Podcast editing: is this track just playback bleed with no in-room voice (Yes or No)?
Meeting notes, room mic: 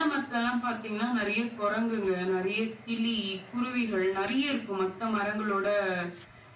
Yes